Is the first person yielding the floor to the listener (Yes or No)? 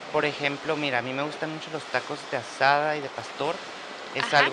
Yes